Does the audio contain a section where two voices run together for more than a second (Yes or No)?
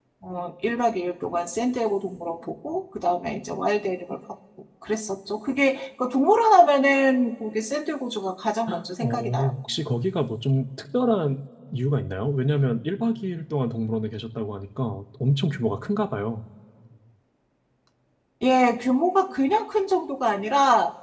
No